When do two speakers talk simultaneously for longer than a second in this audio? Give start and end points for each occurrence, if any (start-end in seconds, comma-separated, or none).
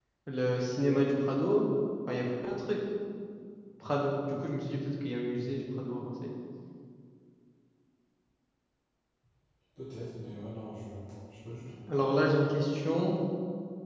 none